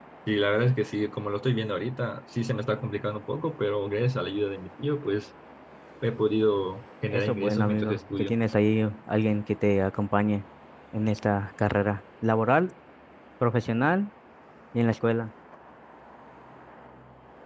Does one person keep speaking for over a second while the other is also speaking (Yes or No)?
Yes